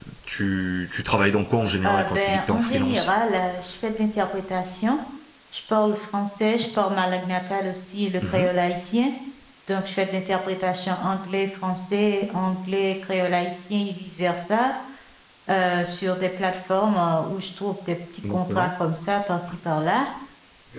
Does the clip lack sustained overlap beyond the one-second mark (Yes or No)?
No